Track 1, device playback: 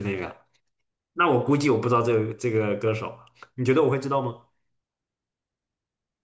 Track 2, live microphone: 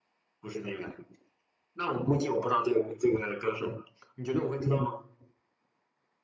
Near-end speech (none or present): none